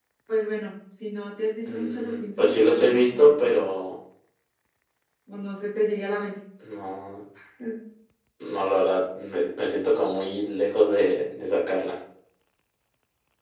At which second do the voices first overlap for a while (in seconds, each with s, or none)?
1.6 s